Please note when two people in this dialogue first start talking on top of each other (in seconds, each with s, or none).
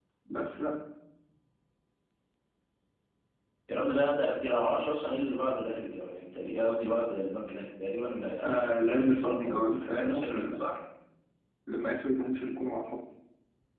8.4 s